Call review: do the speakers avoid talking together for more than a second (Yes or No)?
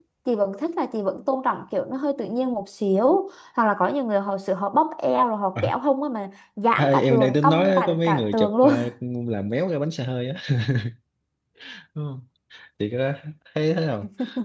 No